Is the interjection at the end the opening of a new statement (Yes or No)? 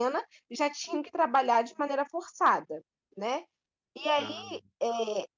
No